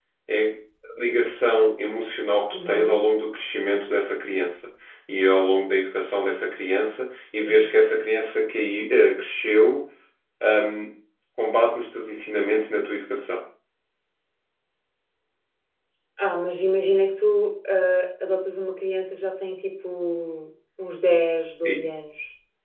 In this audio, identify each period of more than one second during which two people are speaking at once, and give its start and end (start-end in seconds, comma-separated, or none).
none